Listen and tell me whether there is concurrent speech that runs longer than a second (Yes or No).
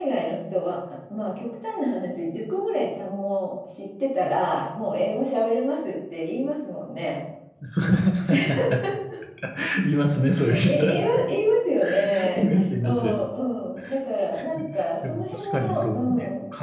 Yes